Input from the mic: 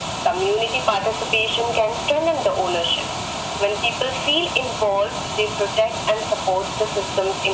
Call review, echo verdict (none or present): present